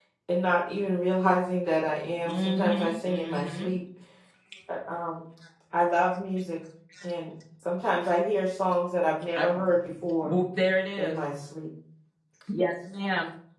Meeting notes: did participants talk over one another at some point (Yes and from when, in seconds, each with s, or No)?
Yes, from 2.2 s